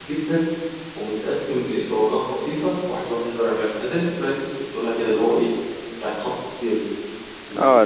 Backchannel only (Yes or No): No